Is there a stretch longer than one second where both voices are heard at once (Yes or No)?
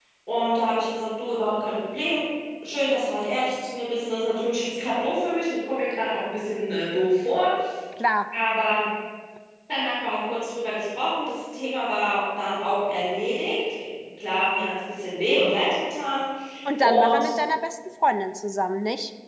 No